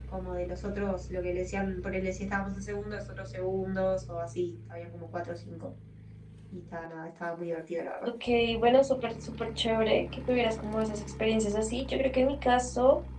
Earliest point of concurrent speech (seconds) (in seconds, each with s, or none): none